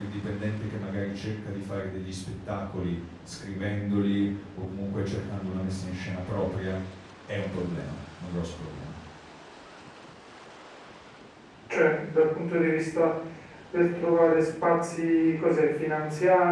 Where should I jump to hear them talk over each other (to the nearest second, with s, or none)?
none